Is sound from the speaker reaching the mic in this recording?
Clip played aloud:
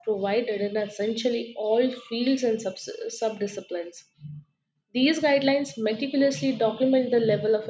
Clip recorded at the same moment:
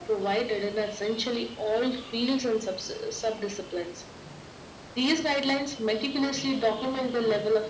Yes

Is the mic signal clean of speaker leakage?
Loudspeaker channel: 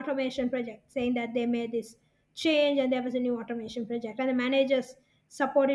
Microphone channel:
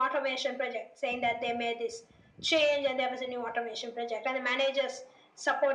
No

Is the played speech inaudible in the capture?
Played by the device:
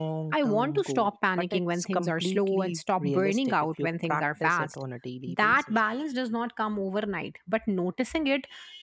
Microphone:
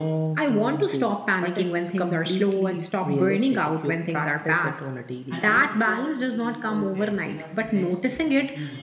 No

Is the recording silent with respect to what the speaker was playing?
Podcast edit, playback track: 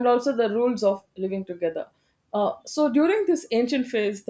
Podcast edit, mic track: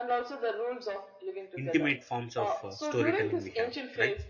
No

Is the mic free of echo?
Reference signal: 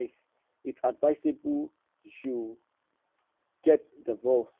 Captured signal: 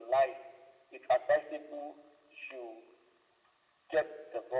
No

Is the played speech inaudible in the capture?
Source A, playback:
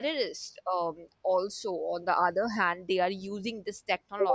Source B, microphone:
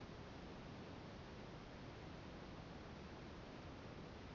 Yes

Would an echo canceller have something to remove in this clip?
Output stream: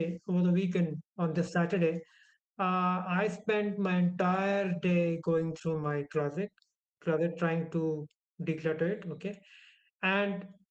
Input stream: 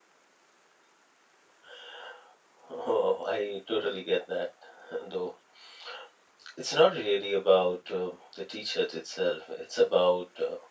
No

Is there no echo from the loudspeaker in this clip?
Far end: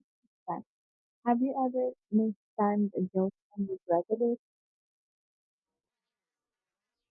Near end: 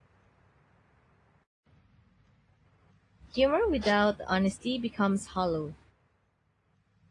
Yes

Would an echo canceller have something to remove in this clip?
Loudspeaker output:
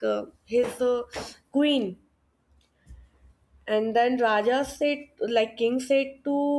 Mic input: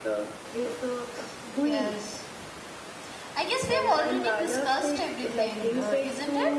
Yes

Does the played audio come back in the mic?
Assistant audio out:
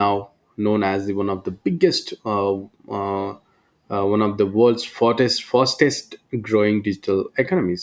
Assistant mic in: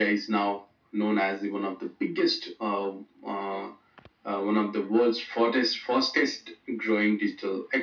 Yes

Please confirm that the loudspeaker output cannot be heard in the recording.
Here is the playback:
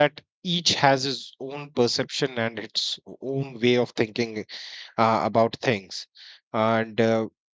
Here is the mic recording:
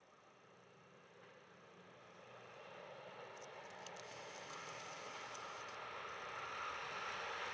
Yes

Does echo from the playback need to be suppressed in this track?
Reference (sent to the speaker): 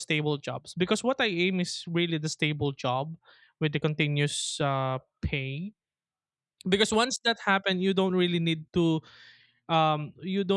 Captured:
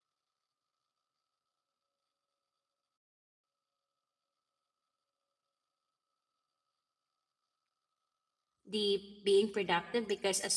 No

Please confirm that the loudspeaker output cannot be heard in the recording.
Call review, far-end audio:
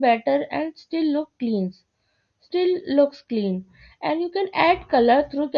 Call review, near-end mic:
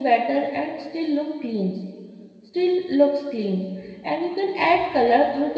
No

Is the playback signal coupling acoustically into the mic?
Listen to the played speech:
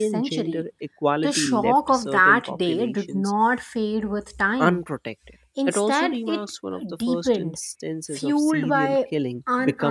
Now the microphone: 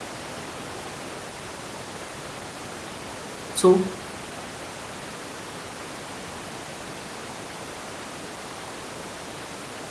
No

